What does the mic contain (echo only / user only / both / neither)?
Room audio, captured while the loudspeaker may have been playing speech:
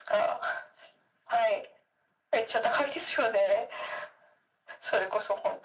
echo only